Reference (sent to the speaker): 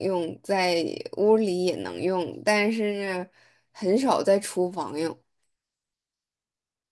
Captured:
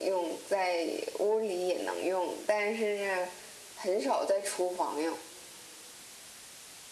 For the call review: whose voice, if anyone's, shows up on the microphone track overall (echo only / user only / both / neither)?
echo only